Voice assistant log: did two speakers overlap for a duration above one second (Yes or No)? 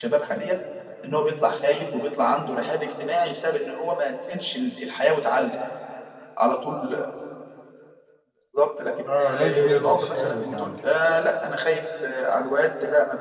Yes